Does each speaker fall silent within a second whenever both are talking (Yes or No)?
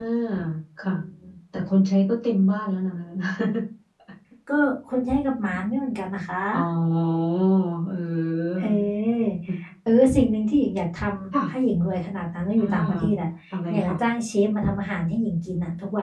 Yes